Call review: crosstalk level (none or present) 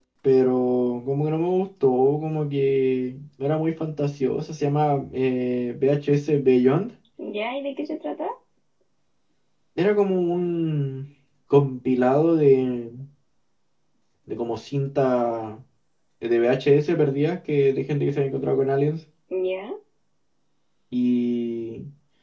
none